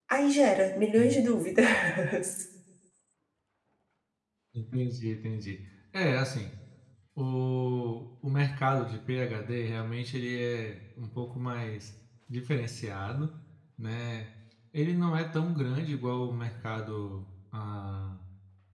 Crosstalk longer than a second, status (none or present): none